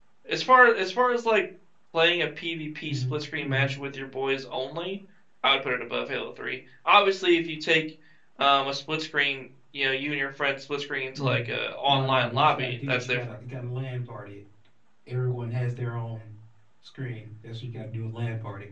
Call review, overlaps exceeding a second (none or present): present